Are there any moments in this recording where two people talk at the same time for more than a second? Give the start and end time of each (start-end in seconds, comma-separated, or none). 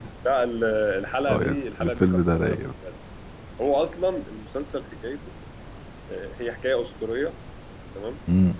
1.3-2.7